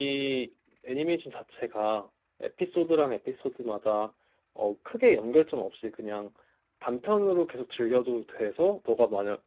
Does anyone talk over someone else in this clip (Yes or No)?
No